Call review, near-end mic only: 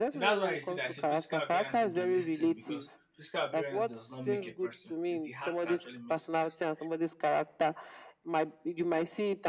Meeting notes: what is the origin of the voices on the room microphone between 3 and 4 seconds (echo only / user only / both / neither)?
both